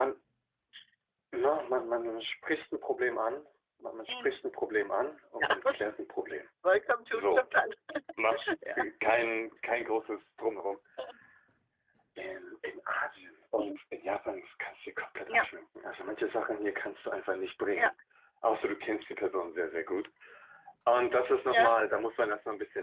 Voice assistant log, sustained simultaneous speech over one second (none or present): none